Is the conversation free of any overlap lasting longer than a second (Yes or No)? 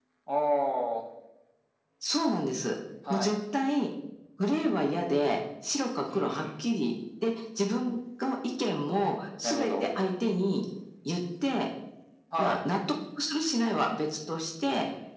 Yes